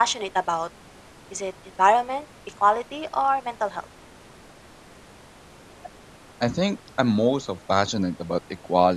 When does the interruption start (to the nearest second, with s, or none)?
none